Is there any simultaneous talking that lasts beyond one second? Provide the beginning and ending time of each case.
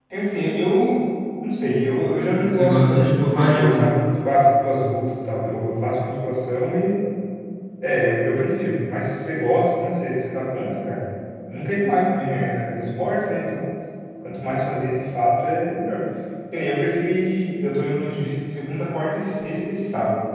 2.4-3.9

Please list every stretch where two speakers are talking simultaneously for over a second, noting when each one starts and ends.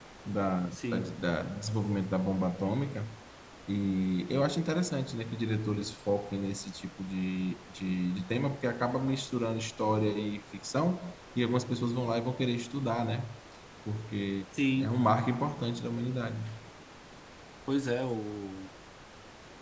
none

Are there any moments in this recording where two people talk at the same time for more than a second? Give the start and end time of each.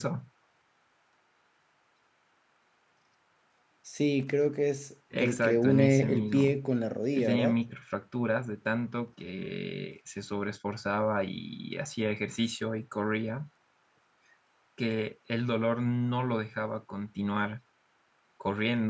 5.2-6.6

